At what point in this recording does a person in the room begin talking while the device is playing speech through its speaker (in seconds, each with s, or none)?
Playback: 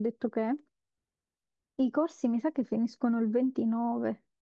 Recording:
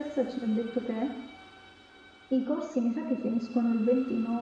none